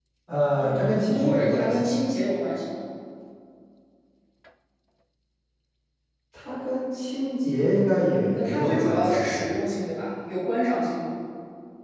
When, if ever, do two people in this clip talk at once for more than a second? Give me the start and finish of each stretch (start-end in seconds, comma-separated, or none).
0.6-1.9, 8.1-9.5